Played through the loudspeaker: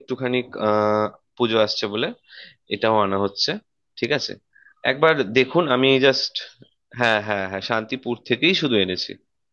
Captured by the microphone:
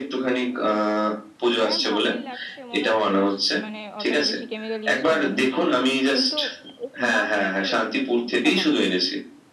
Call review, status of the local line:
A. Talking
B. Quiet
A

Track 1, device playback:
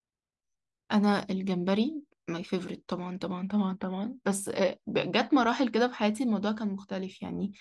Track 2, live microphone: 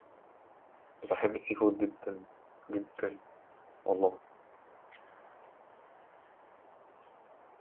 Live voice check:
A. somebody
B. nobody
A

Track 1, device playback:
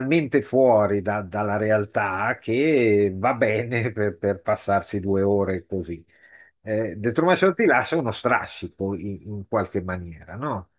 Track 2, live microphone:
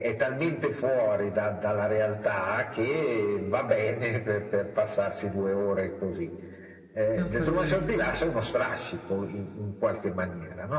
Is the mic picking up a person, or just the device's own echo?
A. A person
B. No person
A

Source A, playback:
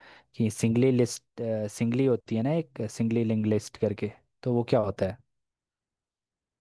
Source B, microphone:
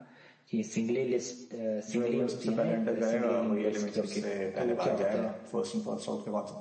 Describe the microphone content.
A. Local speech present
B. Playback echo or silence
A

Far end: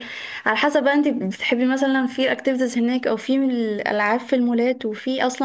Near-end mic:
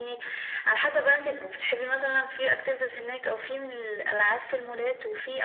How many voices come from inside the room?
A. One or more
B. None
B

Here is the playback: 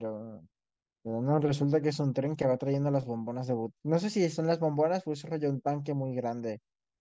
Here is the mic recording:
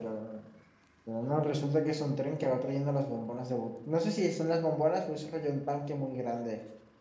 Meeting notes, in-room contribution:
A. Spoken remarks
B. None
B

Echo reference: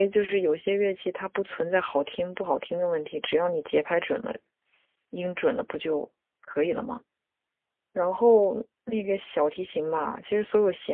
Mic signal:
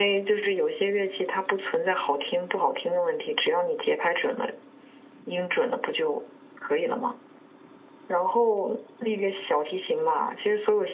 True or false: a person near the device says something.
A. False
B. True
A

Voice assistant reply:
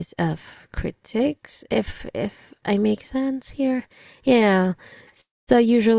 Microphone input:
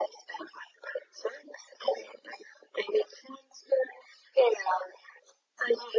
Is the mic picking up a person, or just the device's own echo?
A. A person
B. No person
B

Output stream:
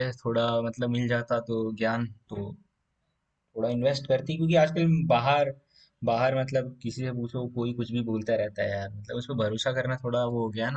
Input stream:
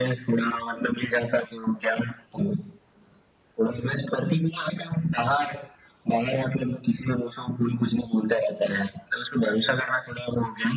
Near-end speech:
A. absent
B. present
A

